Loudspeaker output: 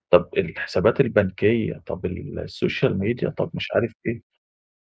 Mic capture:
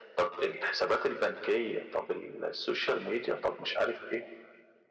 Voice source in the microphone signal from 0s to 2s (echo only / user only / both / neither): echo only